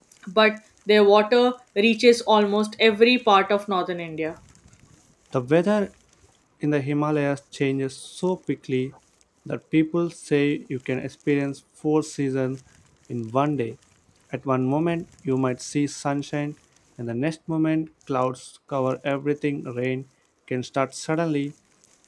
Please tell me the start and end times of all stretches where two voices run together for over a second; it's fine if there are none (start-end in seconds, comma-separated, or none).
none